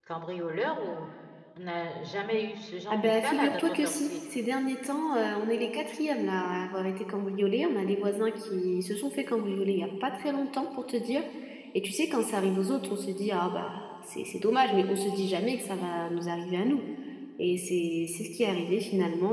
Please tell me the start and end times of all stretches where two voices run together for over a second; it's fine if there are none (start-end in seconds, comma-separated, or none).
2.9-4.1